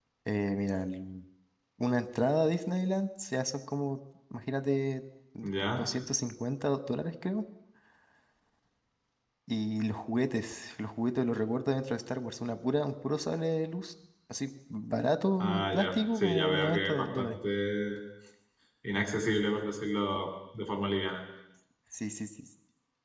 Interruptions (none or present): present